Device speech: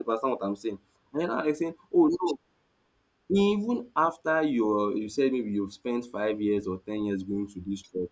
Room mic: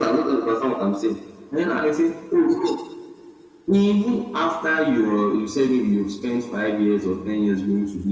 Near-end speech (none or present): none